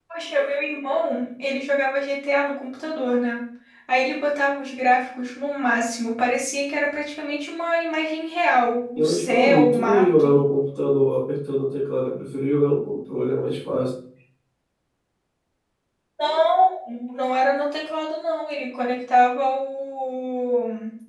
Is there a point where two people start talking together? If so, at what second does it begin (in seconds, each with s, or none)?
9.0 s